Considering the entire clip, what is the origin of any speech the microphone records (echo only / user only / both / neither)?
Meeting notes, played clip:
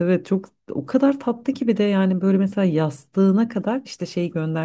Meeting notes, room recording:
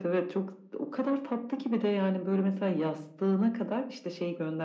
echo only